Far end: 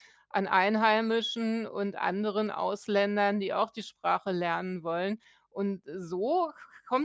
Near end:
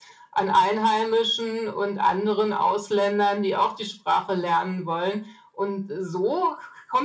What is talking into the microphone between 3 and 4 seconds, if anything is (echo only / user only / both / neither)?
echo only